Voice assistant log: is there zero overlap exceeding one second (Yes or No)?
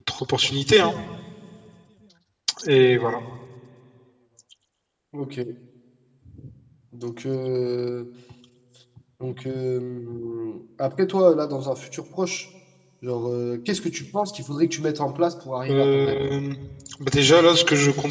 Yes